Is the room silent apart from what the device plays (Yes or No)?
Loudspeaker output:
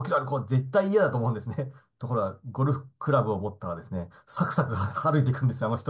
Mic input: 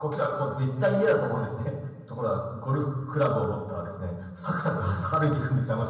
Yes